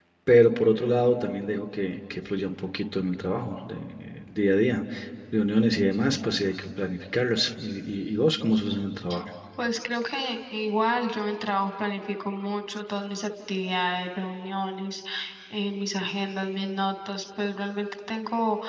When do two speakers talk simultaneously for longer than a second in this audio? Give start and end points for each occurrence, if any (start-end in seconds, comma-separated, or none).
none